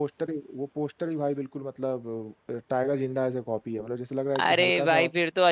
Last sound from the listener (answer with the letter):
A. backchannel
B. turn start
B